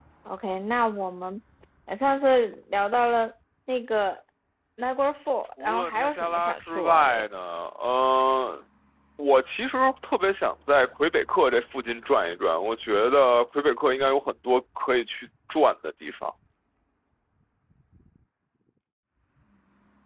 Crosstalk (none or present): present